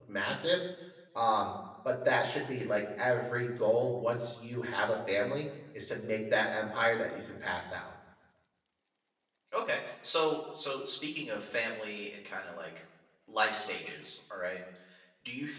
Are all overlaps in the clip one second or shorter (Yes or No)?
Yes